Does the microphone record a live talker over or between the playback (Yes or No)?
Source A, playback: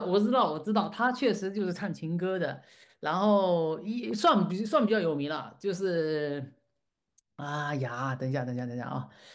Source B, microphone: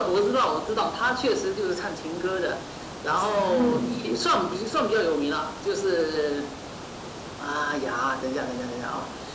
Yes